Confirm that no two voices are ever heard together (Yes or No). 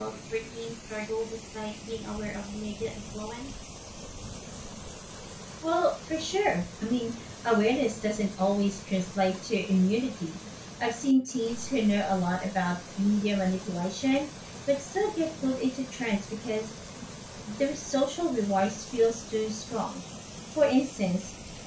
Yes